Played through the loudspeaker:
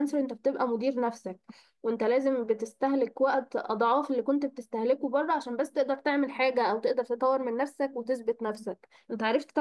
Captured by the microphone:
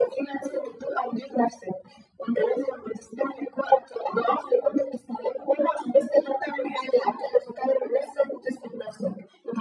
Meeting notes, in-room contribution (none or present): none